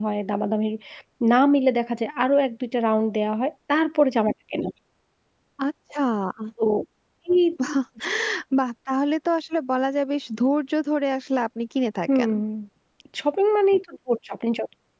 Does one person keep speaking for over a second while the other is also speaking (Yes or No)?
No